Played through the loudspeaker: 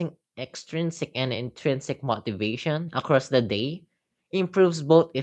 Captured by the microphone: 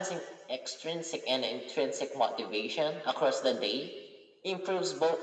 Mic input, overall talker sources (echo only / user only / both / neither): echo only